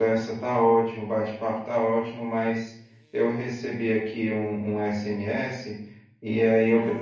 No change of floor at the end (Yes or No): Yes